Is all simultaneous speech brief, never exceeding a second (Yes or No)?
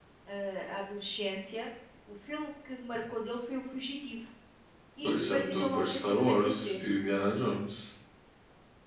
No